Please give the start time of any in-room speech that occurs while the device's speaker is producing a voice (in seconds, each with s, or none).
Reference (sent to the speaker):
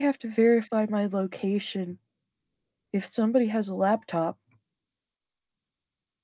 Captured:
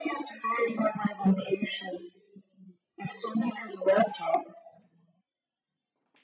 none